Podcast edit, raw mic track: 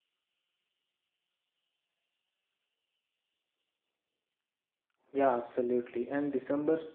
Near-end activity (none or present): present